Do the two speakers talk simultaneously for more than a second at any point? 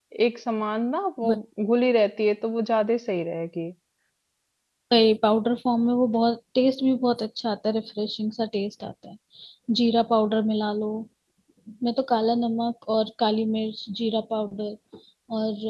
No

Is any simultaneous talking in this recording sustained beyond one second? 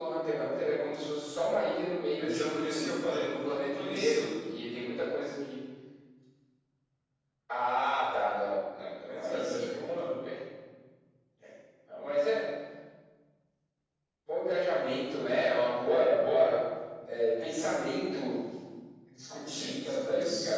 Yes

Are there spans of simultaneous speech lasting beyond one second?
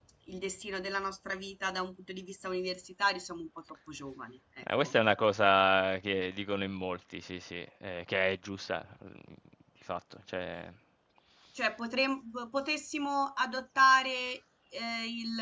No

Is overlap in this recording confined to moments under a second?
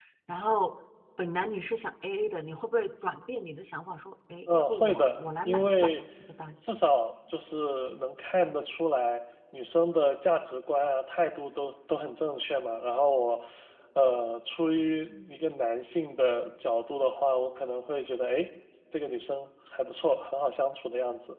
No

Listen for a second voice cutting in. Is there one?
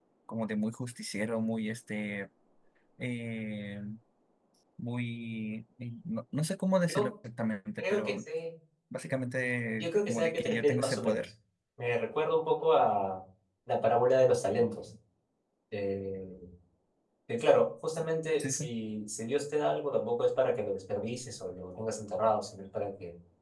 Yes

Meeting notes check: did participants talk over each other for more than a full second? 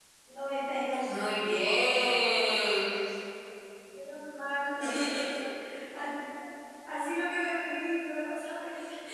No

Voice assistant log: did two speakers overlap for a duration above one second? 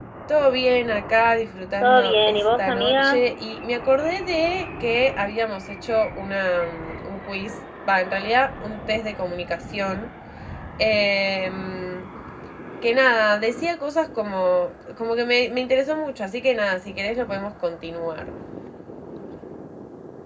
Yes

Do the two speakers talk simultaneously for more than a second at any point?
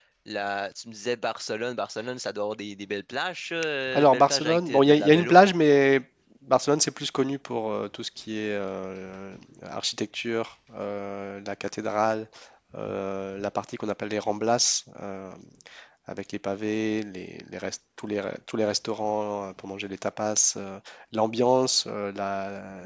Yes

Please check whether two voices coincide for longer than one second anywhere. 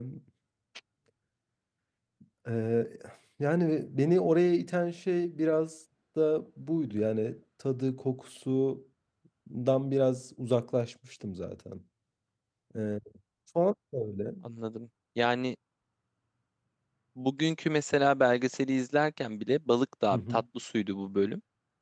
No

